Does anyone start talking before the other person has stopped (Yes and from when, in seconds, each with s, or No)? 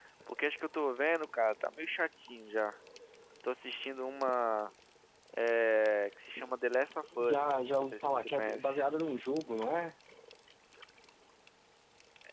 Yes, from 7.2 s